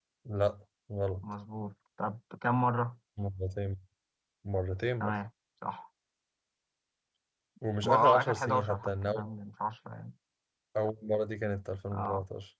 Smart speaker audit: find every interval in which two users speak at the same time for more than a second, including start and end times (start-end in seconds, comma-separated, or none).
7.8-9.3